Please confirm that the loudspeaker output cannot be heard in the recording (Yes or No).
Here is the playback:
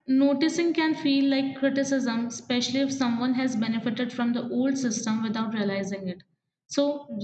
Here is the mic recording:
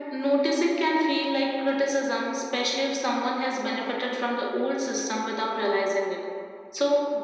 No